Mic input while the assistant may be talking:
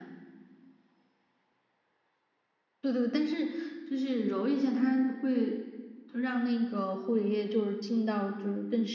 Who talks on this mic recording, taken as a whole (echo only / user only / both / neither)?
echo only